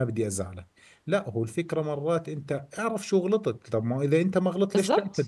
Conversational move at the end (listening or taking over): listening